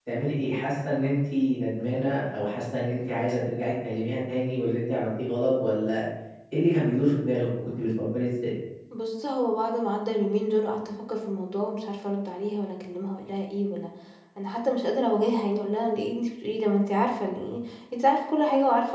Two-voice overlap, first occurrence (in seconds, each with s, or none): none